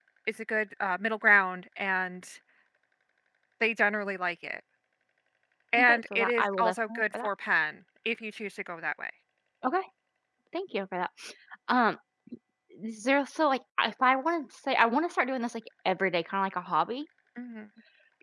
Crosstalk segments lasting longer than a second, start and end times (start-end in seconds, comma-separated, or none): 5.8-7.3